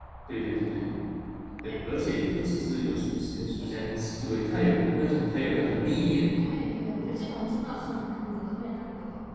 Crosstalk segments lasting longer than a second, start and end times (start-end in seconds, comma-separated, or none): none